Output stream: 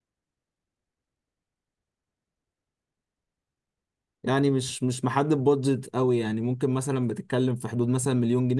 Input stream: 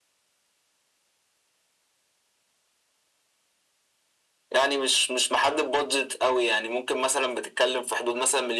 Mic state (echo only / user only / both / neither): echo only